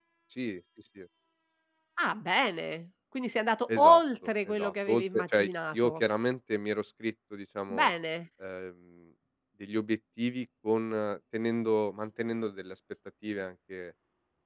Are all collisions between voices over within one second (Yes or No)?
No